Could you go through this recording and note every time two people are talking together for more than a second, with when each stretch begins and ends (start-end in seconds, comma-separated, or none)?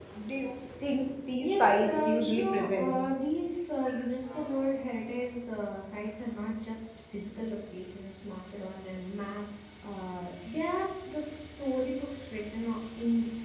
1.4-3.1